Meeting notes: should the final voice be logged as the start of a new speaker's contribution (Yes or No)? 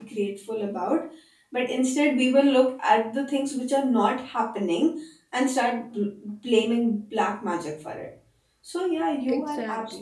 No